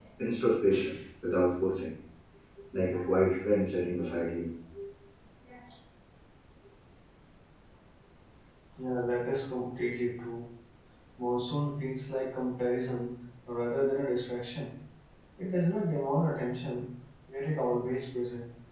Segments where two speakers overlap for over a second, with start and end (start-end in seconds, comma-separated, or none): none